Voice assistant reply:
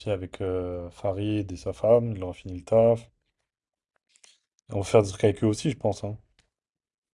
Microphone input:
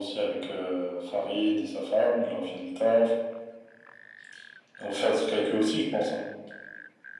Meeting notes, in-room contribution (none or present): none